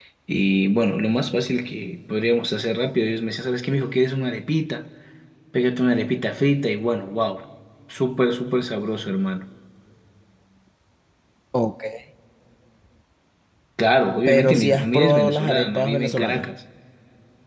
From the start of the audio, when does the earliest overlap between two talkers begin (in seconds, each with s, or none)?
14.3 s